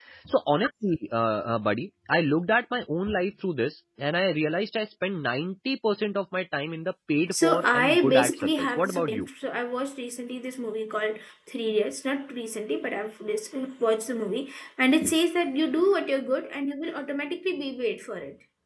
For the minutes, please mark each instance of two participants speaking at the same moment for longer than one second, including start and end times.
7.3-9.3

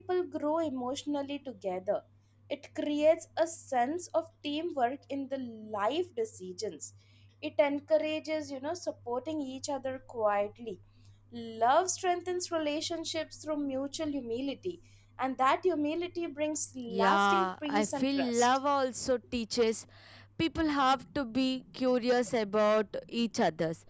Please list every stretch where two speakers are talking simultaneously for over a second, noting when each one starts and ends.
16.9-18.5

